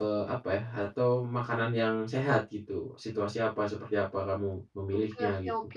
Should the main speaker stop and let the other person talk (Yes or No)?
Yes